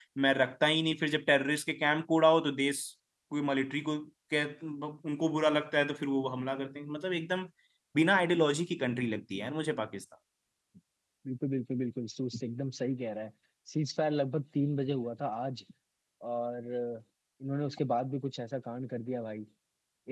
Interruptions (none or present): none